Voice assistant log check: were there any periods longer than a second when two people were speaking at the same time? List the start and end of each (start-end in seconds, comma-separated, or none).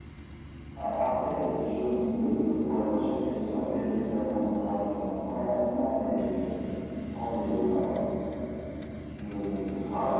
none